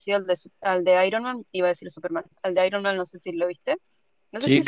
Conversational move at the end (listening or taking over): taking over